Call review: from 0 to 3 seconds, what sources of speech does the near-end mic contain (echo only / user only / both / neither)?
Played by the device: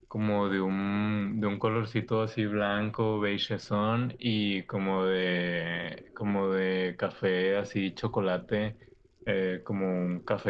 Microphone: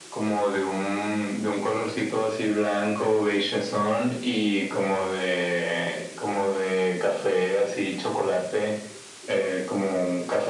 echo only